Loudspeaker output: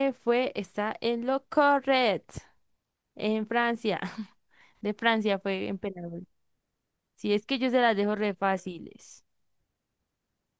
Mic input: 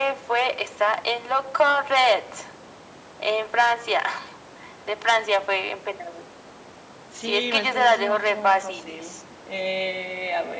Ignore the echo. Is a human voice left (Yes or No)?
Yes